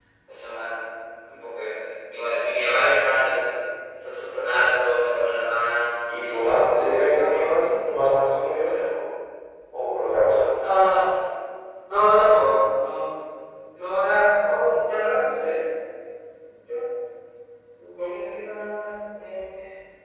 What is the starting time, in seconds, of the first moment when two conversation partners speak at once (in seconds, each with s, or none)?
6.1 s